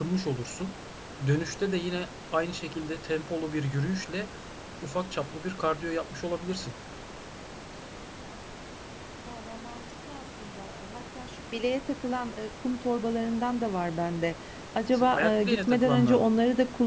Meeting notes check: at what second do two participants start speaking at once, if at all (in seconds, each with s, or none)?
14.9 s